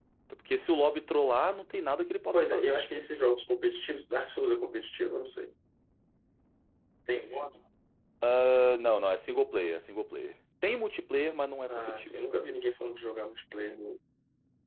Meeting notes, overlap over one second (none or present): none